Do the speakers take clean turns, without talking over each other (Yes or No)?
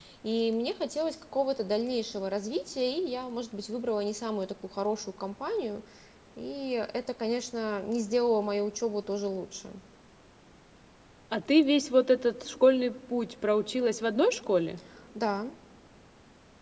Yes